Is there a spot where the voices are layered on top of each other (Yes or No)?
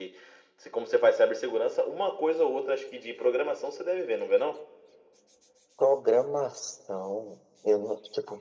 No